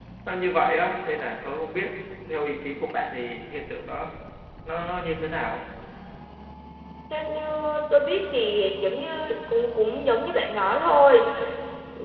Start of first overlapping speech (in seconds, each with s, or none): none